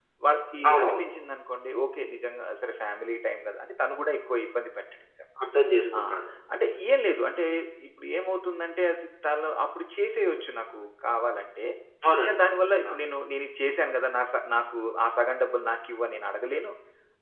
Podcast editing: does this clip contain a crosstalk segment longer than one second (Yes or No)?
No